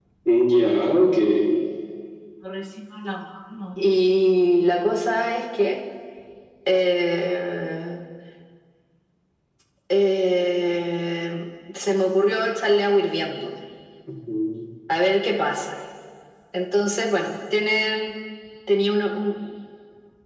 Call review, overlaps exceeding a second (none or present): none